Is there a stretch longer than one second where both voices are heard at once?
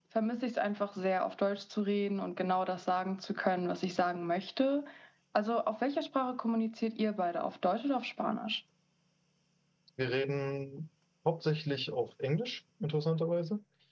No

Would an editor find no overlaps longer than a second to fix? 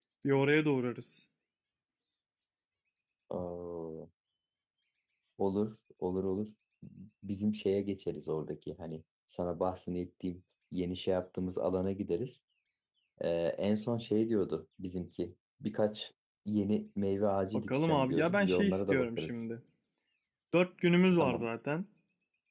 No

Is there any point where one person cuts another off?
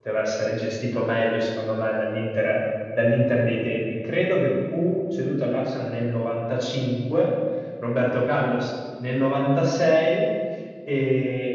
No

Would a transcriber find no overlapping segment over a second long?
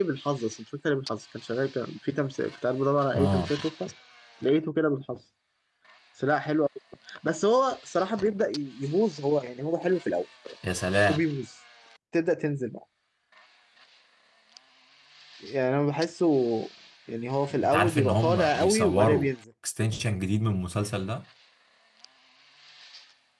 No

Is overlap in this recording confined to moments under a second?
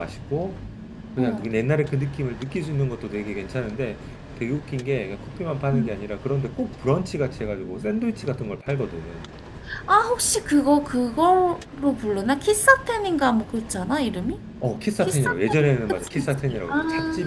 No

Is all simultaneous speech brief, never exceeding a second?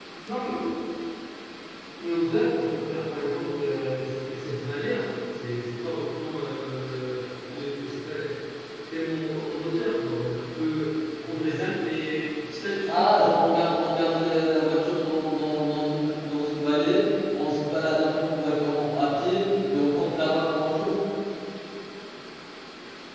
Yes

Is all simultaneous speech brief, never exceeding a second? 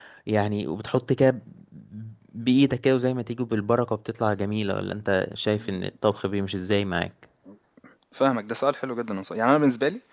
Yes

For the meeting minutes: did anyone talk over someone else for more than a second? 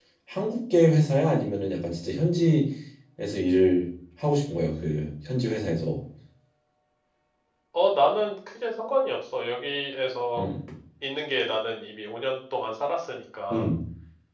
No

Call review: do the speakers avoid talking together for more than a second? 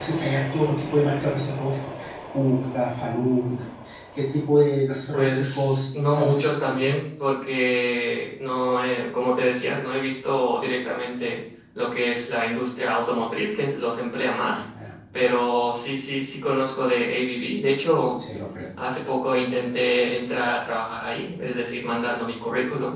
No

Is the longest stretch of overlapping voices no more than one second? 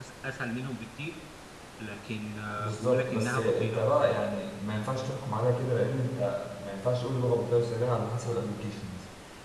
No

